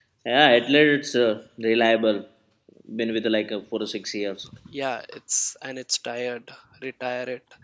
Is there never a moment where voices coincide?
Yes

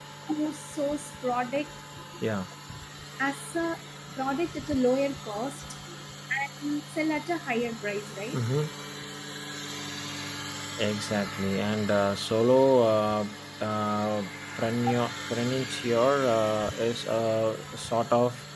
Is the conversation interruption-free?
Yes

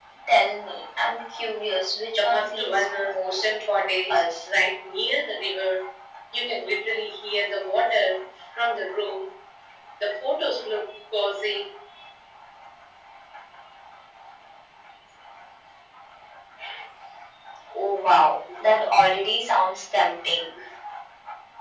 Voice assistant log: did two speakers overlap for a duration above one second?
Yes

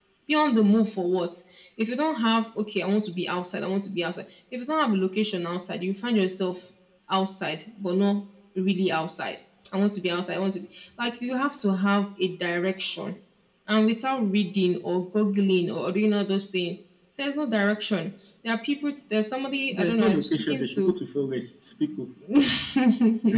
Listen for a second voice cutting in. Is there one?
Yes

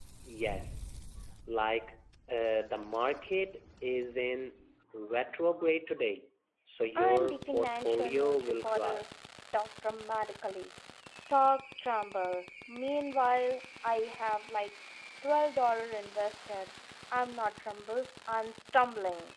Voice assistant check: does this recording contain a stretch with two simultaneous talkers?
Yes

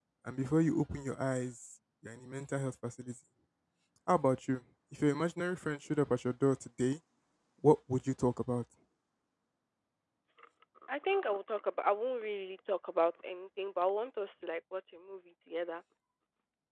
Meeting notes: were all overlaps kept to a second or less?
Yes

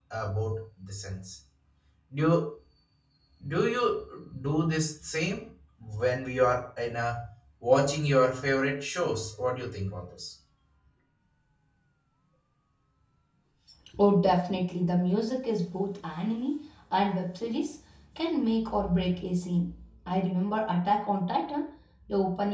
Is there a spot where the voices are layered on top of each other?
No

